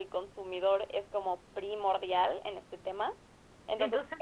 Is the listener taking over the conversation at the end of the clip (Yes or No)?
No